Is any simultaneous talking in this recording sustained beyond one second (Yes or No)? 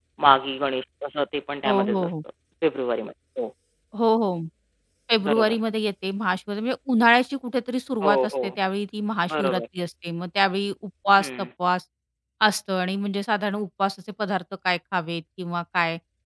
No